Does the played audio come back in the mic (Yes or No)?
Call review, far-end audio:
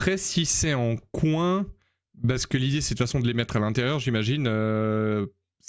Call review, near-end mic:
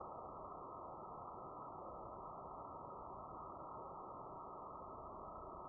No